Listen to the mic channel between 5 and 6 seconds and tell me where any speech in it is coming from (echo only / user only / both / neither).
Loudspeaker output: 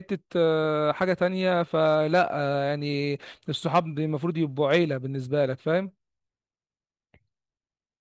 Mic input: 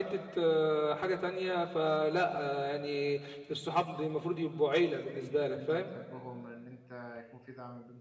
both